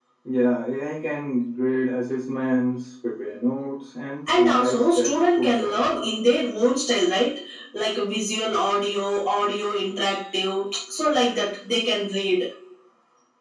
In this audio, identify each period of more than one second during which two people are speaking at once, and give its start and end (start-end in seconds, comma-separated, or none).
4.4-6.1